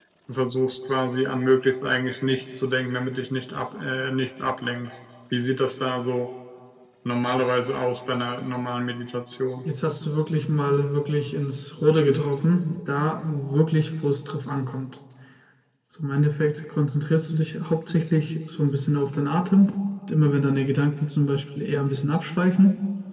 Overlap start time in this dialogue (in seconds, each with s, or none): none